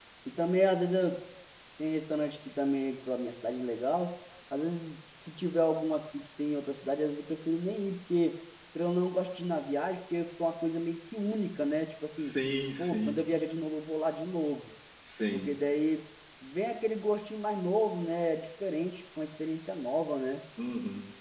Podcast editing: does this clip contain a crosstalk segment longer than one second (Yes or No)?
No